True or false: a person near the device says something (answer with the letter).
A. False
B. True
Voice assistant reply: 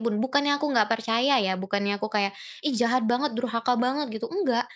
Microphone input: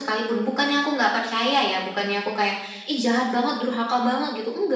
A